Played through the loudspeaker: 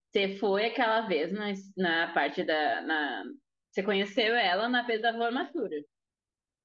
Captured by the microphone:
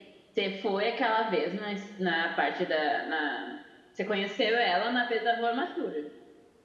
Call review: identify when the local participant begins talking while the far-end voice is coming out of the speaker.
none

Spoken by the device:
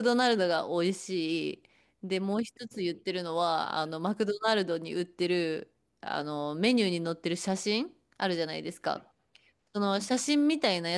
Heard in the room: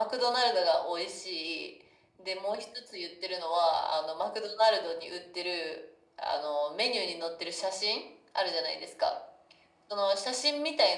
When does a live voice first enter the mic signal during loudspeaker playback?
none

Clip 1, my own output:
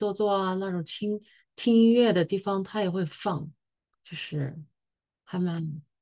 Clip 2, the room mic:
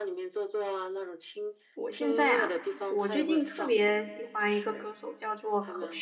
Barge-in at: 1.7 s

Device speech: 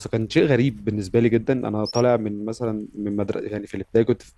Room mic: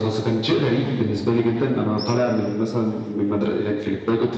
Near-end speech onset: none

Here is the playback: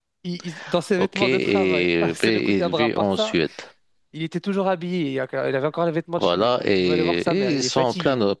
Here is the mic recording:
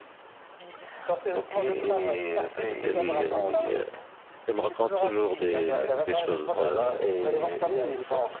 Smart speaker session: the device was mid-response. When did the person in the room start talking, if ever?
2.8 s

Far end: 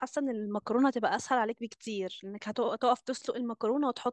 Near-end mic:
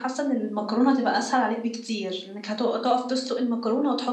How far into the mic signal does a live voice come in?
none

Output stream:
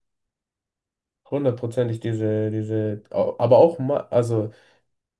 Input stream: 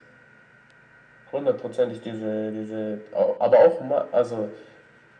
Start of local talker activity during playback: none

